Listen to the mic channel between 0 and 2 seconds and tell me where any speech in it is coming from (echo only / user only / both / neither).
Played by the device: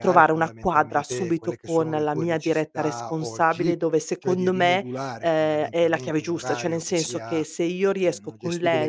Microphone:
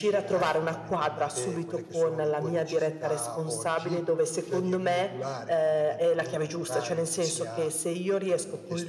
echo only